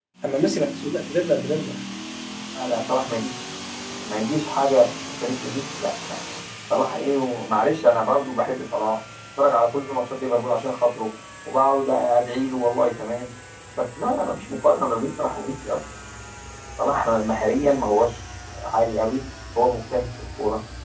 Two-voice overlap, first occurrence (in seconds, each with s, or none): none